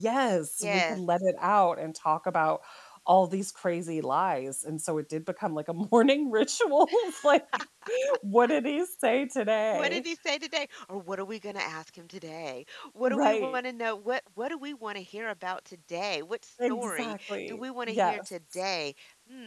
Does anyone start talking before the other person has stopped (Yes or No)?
Yes